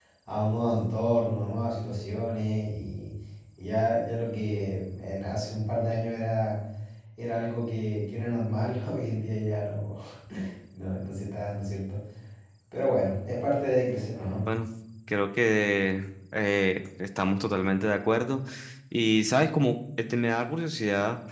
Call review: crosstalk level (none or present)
none